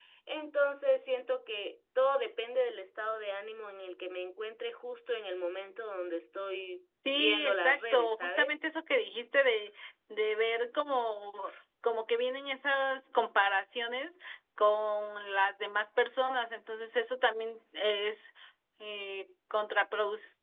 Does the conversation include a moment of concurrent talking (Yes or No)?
Yes